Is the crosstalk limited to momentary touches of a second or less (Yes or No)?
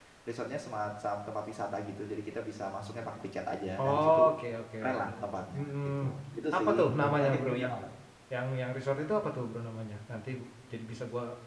No